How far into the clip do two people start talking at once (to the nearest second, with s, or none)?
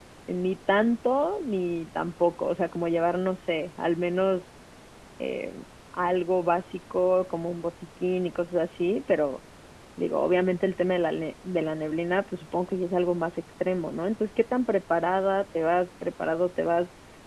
none